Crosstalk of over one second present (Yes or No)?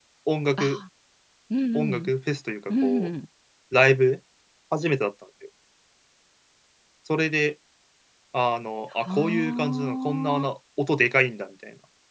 Yes